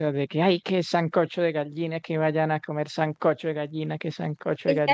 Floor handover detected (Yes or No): Yes